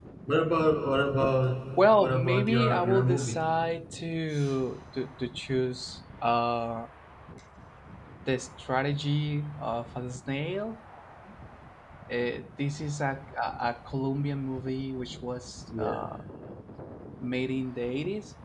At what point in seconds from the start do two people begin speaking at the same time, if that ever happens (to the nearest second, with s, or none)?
2 s